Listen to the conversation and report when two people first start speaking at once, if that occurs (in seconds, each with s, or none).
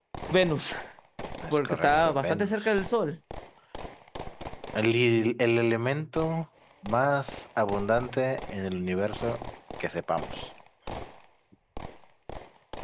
1.5 s